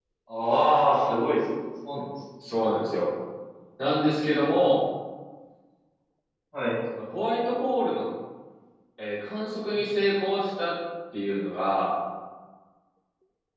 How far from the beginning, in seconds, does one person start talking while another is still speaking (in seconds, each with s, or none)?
none